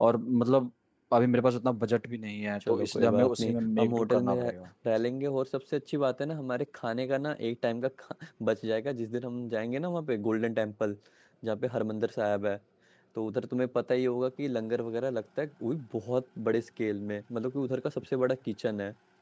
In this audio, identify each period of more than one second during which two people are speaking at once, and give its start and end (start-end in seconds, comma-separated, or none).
2.7-4.5